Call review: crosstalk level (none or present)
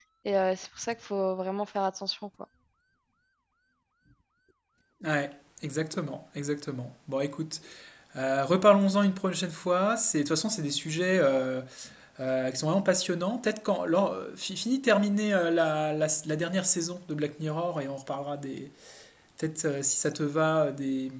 none